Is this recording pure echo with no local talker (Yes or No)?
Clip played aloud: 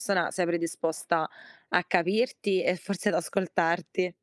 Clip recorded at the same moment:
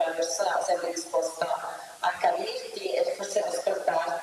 Yes